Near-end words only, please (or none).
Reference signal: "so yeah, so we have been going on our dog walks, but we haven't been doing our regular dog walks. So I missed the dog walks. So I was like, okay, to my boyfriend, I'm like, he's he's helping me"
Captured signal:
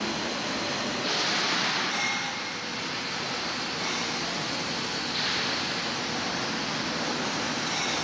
none